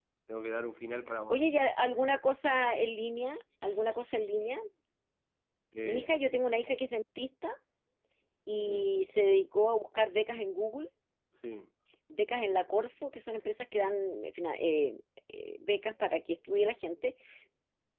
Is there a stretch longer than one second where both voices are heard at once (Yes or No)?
No